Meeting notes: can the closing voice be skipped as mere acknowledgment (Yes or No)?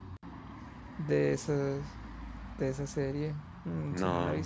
Yes